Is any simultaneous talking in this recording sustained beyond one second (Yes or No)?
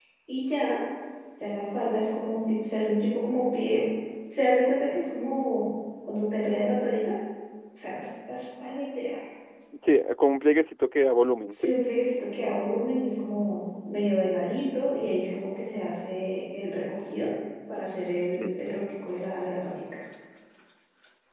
No